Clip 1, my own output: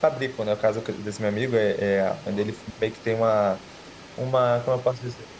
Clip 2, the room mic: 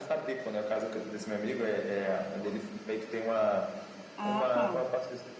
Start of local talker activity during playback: 4.2 s

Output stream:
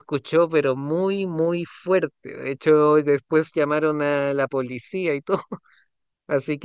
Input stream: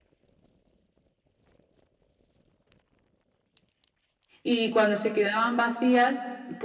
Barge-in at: 4.4 s

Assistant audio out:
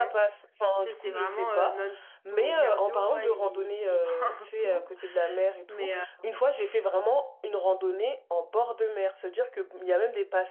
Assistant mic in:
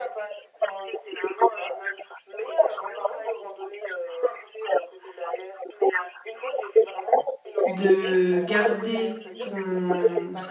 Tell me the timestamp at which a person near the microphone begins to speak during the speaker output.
7.7 s

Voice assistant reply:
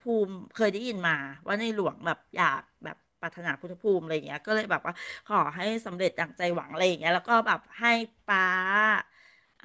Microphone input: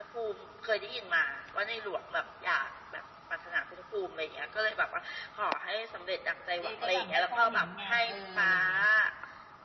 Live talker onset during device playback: 6.6 s

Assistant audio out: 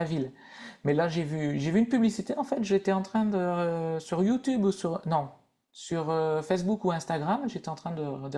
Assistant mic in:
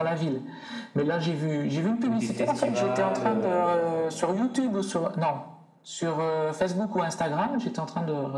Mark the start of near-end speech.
2.0 s

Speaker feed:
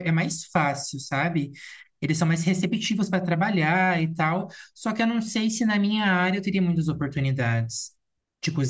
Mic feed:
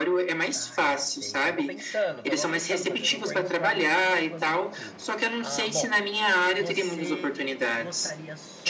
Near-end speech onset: 0.5 s

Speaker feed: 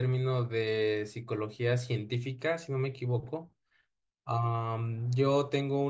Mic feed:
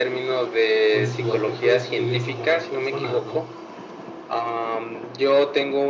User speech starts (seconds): 0.9 s

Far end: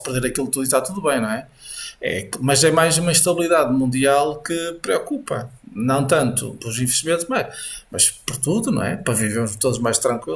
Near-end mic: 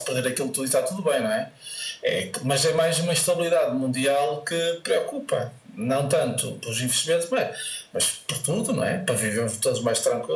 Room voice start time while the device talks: none

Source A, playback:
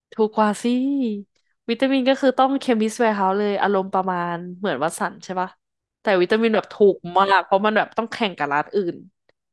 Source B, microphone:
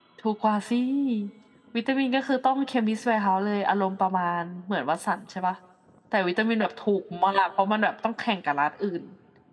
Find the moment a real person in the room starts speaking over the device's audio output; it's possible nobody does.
none

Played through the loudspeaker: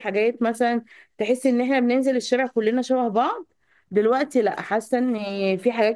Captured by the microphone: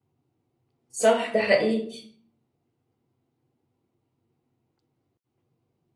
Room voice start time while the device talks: 0.9 s

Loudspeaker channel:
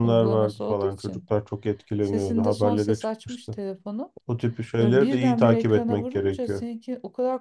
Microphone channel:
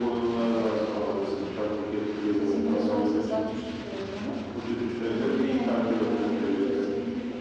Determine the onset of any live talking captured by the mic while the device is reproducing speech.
none

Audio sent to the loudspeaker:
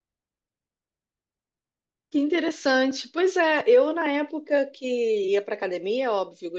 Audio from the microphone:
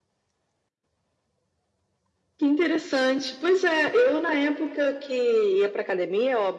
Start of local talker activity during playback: none

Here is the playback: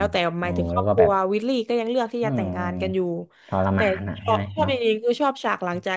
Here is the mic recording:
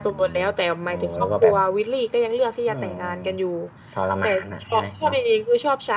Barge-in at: 1.2 s

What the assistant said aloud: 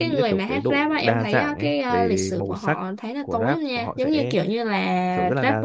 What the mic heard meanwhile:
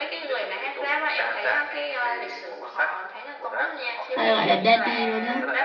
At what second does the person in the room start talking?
4.1 s

